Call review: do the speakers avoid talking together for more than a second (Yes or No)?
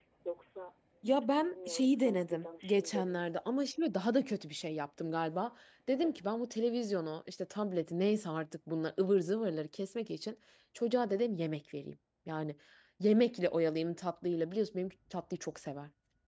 No